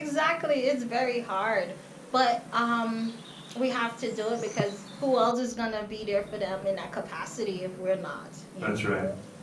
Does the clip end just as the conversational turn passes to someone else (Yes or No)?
Yes